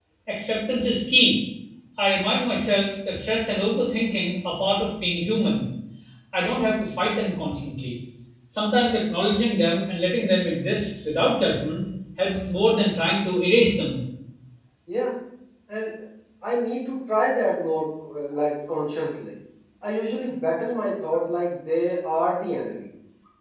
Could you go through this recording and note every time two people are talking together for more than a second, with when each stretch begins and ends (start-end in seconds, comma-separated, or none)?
none